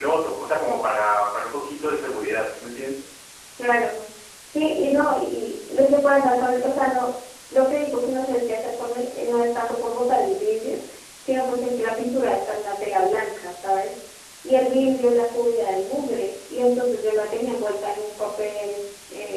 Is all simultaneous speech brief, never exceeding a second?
Yes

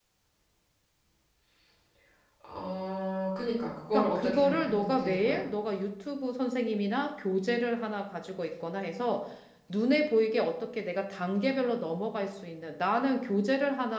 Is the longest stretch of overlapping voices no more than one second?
No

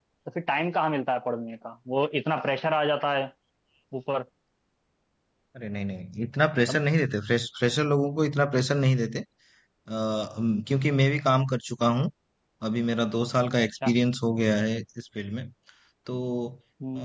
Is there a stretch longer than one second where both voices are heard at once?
No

